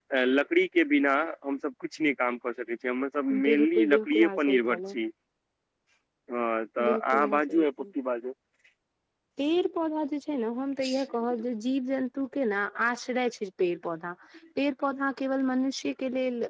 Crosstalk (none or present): present